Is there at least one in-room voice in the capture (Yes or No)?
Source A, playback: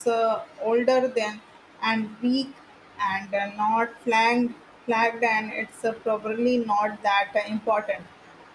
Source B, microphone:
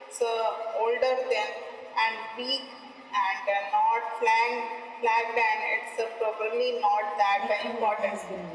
Yes